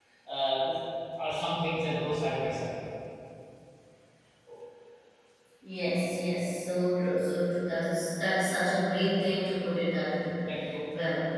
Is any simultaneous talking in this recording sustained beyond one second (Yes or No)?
No